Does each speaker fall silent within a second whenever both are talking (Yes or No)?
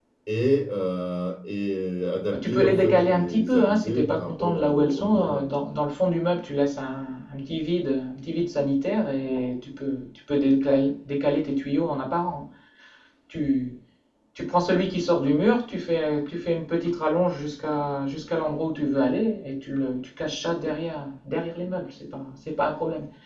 No